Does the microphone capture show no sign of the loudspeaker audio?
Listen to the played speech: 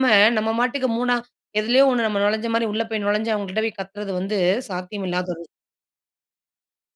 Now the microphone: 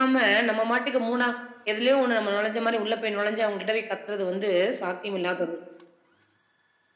No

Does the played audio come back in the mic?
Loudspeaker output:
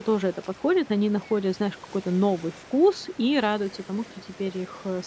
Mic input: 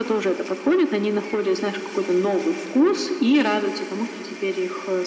Yes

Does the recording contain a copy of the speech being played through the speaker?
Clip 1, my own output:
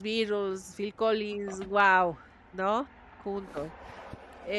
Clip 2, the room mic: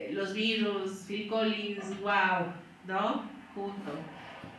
Yes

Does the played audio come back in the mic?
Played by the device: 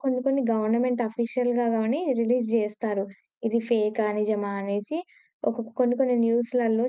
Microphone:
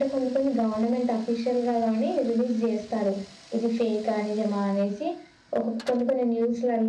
Yes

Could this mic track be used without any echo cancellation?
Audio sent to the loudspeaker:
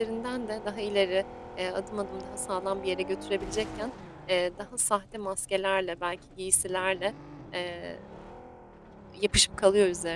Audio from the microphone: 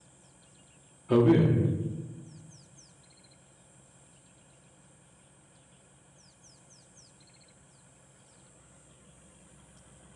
Yes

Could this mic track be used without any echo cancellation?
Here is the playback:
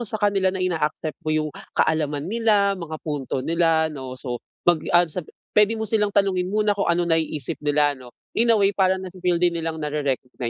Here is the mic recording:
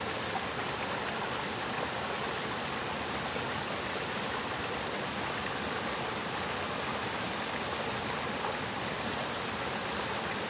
Yes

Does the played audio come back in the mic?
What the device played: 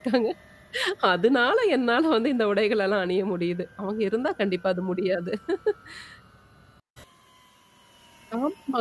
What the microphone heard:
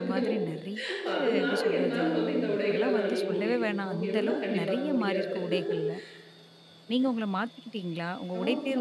Yes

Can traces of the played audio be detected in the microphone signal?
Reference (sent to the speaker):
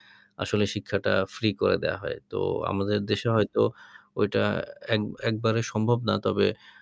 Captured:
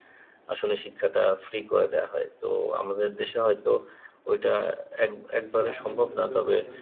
Yes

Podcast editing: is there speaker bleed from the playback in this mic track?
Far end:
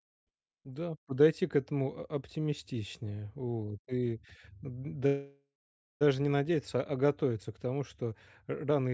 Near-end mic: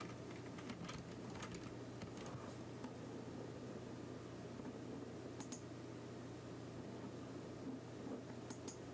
No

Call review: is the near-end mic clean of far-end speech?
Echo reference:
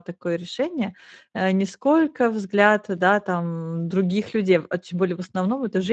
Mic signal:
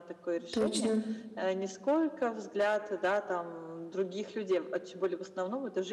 No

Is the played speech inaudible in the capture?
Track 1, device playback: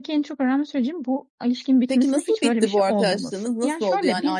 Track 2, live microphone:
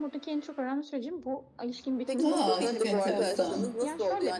No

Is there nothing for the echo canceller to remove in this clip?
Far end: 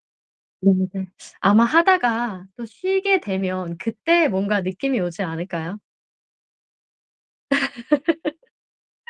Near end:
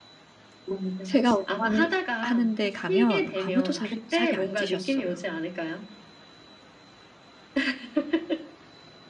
No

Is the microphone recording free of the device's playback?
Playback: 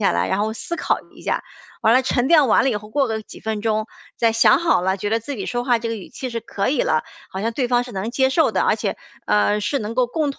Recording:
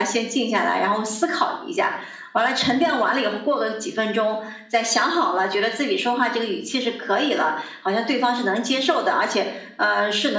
No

